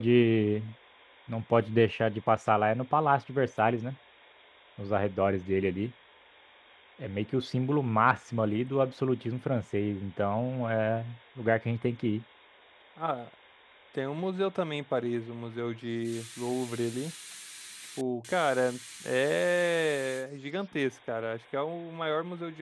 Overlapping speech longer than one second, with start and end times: none

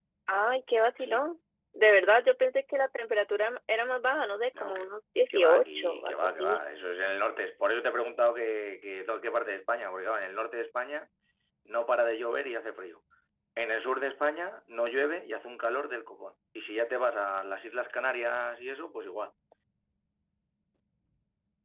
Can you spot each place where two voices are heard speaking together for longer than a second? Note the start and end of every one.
5.3-6.6

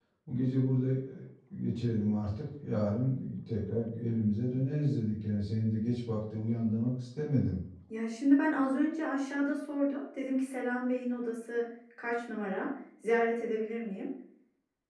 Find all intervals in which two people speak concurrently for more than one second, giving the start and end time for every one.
none

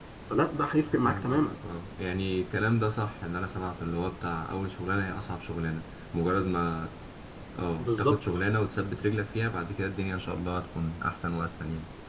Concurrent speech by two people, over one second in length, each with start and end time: none

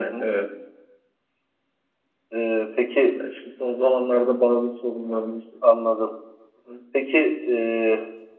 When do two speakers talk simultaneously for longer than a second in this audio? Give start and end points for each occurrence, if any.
none

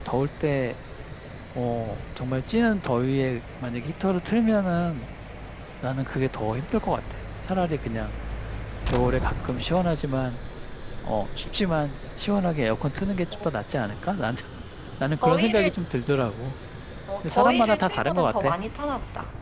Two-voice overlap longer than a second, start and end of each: 17.2-18.5

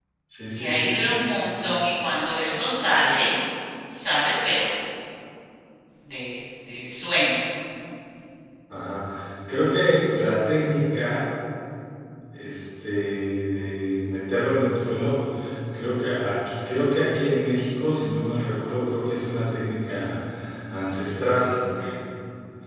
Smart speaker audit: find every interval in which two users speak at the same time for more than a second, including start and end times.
none

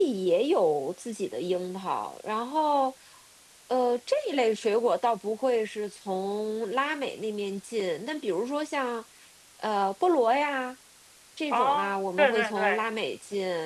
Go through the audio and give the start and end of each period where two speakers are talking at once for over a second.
11.5-12.9

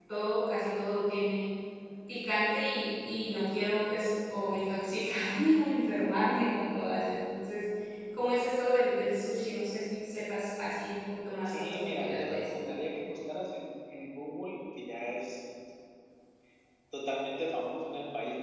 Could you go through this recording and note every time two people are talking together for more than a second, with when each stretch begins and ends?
11.4-12.8

